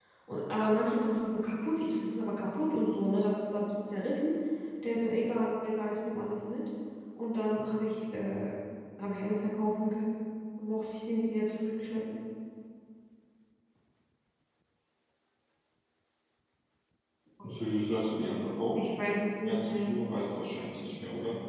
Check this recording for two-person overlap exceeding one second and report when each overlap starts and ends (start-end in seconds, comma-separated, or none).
none